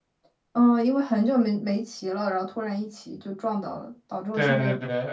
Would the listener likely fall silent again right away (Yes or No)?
No